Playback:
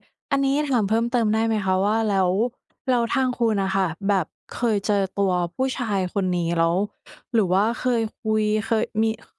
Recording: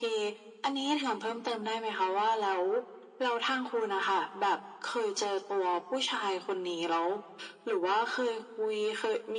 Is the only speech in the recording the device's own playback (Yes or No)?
Yes